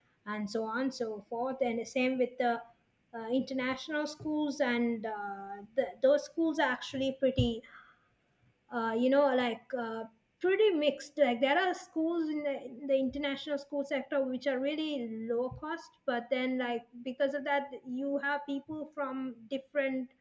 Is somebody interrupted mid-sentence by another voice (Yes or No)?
No